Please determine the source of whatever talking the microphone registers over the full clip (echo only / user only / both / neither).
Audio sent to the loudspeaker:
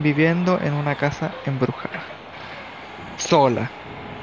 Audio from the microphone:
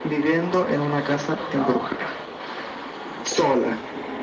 both